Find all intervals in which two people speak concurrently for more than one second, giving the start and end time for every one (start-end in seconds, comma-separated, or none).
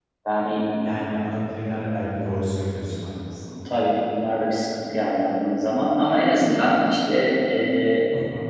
none